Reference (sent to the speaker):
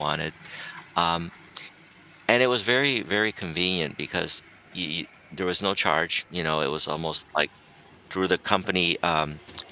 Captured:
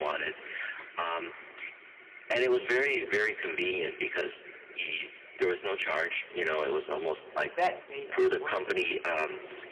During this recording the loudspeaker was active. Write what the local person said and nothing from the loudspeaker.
And that made a world of a difference.

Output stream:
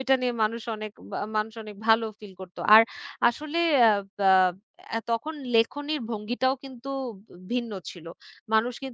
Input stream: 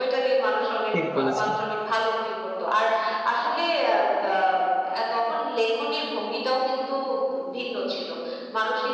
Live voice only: ঠিক বলেছেন।

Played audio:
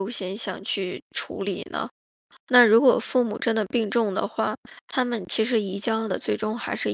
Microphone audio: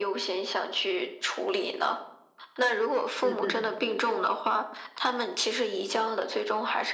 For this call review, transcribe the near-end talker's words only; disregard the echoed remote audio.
嗯嗯嗯

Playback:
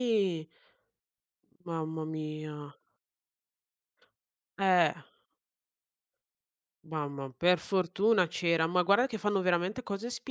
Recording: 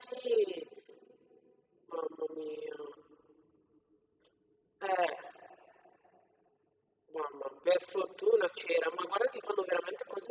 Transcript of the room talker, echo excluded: none

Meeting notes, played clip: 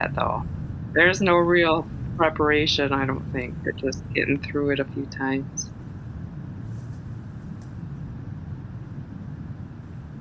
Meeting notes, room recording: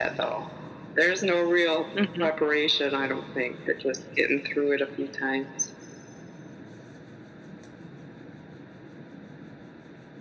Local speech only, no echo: Mhm.

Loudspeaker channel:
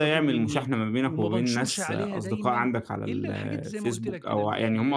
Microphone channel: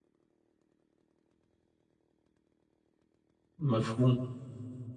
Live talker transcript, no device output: مفهوم،

